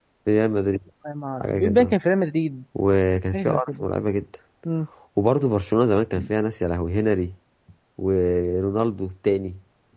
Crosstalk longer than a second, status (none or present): none